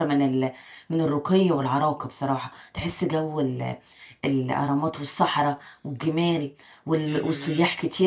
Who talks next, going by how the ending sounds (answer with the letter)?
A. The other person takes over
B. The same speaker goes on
B